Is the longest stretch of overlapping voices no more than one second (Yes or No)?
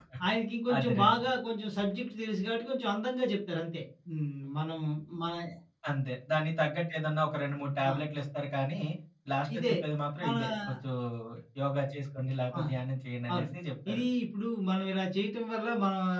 Yes